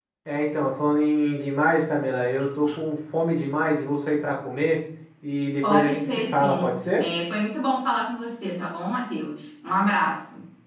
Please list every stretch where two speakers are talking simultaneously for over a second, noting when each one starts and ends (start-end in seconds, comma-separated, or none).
5.6-7.0